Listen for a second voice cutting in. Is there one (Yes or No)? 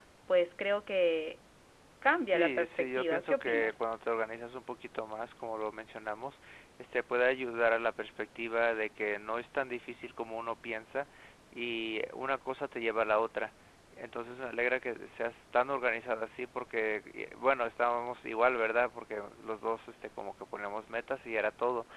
Yes